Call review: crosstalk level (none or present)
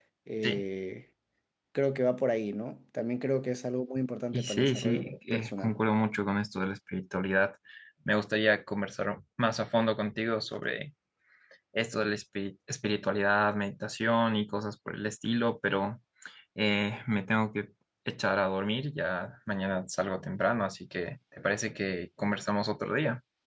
present